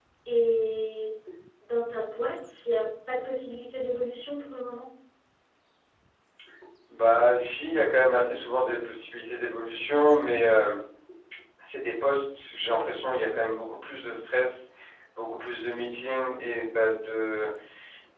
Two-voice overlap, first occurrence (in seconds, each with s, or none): none